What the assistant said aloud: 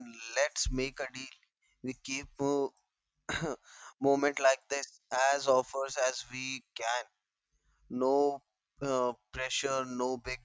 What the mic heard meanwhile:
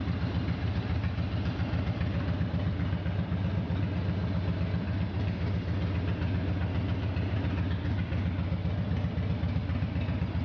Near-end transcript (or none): none